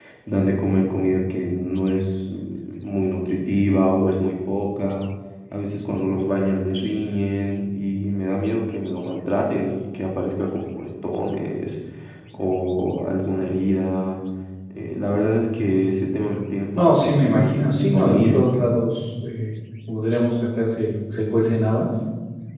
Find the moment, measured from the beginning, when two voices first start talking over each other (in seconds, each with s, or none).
16.8 s